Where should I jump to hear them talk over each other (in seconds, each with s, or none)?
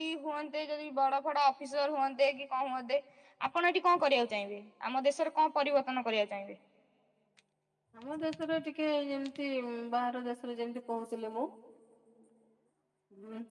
none